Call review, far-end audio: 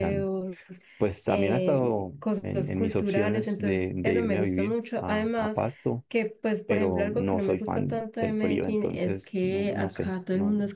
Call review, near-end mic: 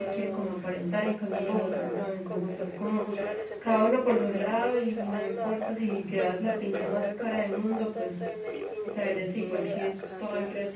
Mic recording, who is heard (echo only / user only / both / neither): both